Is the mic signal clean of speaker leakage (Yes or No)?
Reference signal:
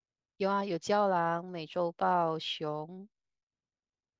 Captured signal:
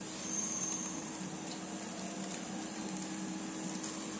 Yes